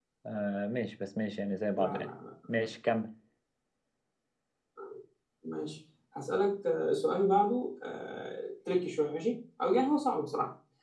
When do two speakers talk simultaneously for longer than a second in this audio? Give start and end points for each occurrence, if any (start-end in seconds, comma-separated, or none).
none